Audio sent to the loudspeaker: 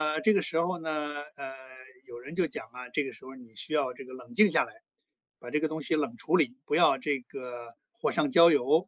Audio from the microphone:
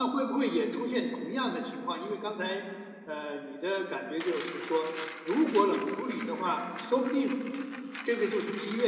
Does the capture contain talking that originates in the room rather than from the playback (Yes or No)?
Yes